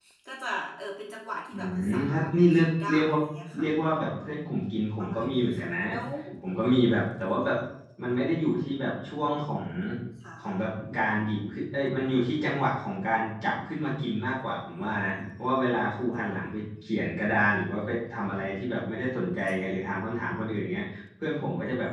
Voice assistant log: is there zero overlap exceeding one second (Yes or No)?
No